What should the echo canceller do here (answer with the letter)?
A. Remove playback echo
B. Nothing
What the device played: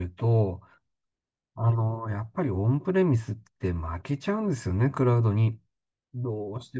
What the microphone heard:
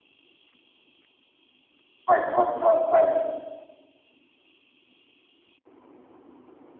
B